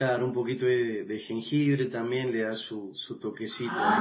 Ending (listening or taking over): taking over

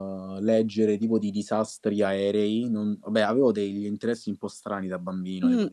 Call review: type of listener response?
taking over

